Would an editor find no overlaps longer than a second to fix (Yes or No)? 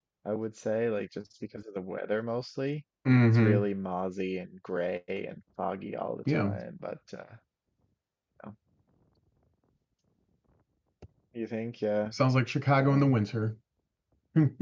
Yes